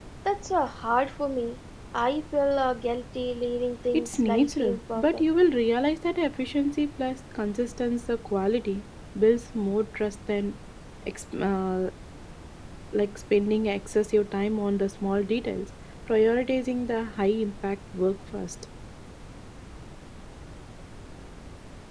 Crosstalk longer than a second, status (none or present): present